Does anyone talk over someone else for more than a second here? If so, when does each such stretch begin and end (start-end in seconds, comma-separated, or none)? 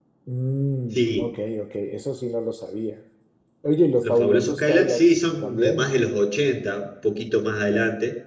4.0-5.9